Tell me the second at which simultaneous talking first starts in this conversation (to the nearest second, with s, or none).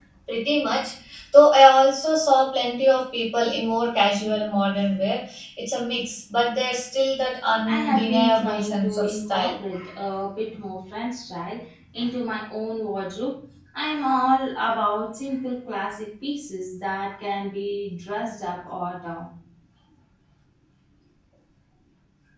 8 s